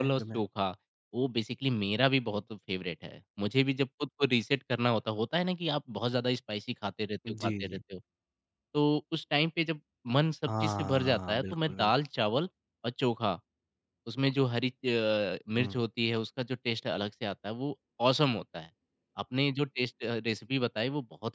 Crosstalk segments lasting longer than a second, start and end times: 10.5-11.9

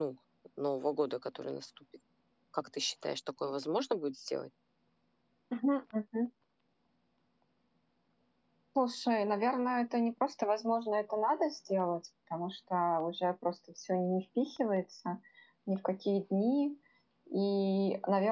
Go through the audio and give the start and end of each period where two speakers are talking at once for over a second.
none

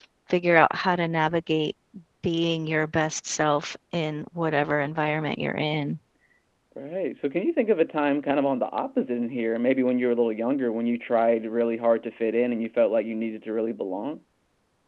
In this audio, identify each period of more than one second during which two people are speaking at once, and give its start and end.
none

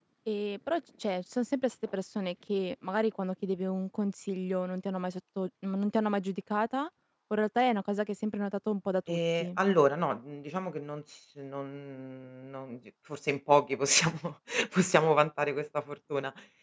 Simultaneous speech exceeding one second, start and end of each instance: none

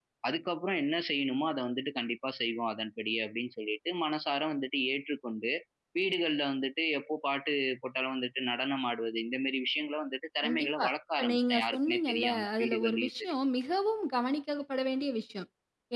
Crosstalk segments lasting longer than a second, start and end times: 10.4-13.3

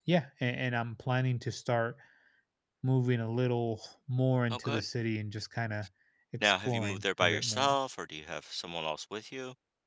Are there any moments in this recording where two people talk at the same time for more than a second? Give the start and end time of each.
6.4-7.8

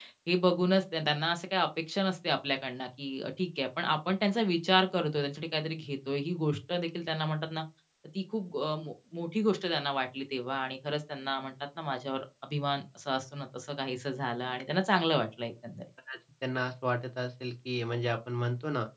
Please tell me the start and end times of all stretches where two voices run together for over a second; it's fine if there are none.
none

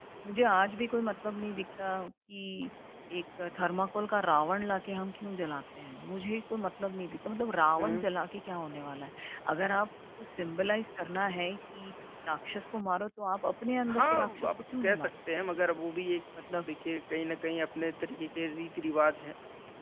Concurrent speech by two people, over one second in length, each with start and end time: 13.9-15.1

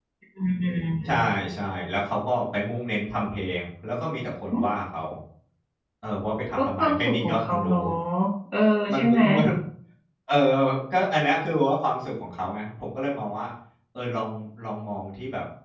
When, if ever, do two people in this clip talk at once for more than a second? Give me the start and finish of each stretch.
6.6-7.8

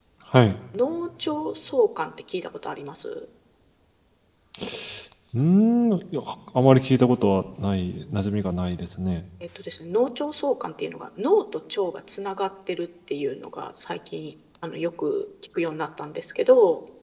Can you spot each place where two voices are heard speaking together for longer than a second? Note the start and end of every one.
none

